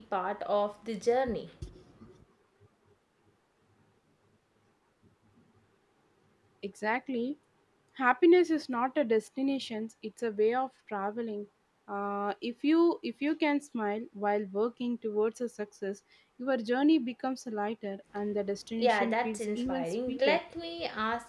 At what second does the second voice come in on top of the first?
18.8 s

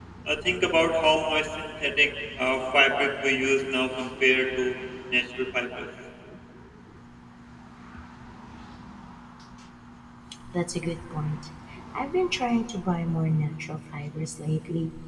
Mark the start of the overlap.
none

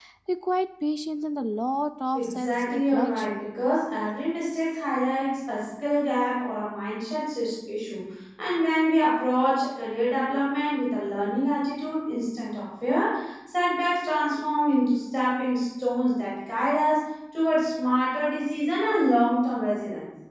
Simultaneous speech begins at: 2.1 s

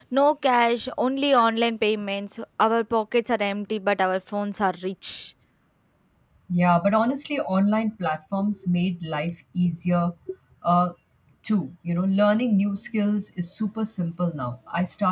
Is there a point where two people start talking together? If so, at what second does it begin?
none

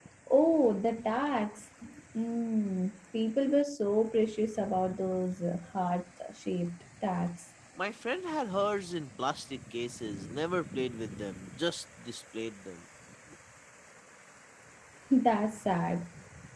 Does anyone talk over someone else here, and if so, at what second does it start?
none

